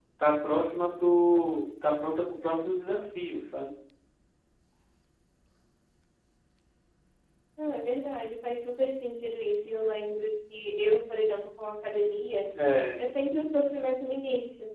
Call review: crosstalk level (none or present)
none